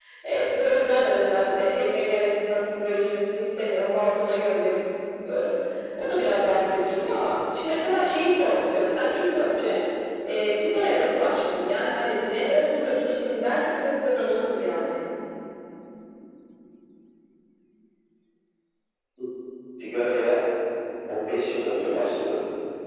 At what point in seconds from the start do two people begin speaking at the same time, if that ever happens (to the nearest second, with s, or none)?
none